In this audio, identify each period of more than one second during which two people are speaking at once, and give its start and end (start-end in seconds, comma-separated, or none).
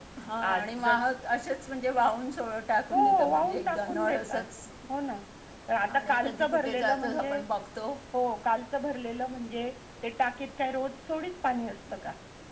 2.9-4.4, 6.0-7.4